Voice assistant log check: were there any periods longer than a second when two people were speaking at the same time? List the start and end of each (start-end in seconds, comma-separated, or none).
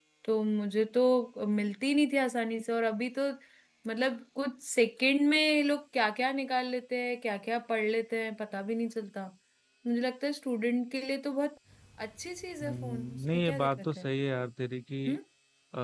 12.6-14.1